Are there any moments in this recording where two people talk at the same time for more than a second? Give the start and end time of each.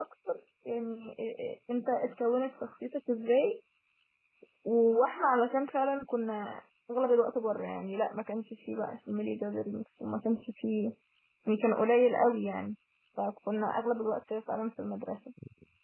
none

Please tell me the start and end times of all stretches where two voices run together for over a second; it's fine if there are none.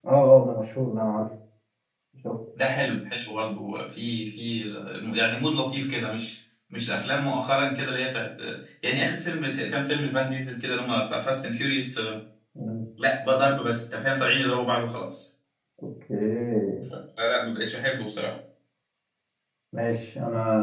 none

